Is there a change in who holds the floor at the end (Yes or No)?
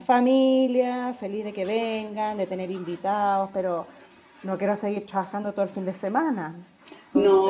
Yes